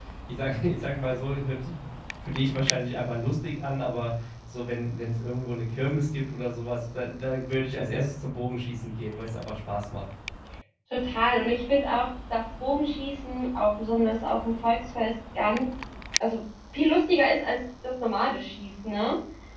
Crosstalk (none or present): none